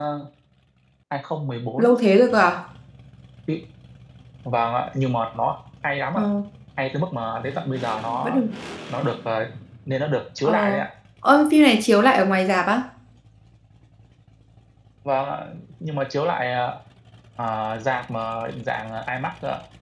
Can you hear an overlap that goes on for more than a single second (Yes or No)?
No